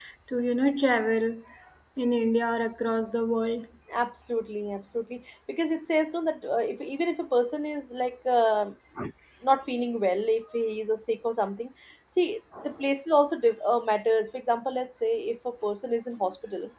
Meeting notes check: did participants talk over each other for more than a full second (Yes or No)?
No